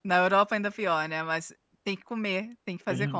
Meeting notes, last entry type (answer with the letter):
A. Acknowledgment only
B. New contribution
B